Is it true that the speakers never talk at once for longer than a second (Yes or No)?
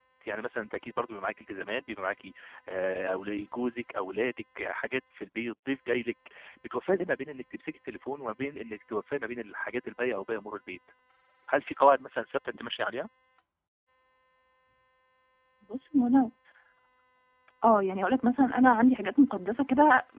Yes